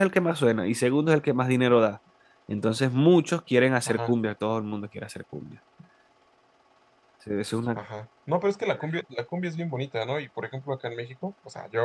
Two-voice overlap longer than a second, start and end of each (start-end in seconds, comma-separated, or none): none